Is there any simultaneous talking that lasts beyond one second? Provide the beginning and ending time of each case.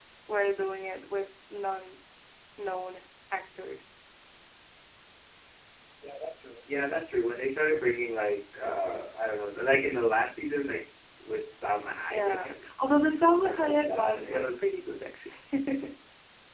13.4-14.7

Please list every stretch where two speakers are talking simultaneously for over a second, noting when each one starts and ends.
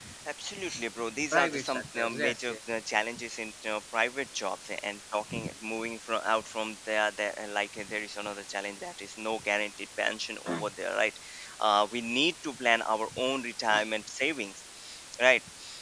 1.3-2.5

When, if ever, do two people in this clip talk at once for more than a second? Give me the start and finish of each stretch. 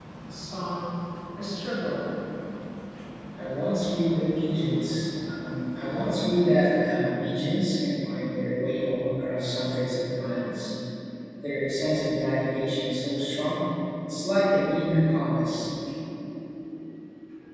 none

